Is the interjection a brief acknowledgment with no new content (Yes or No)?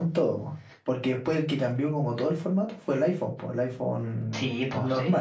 No